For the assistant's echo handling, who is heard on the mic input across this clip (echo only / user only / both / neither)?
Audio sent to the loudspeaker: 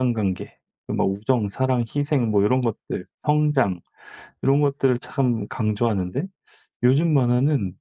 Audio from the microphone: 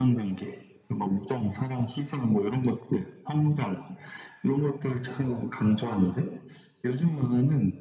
echo only